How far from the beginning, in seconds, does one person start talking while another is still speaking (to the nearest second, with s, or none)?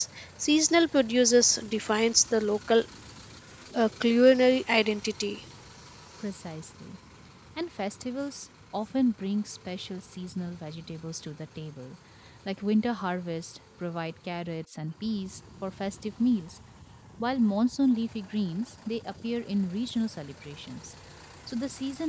none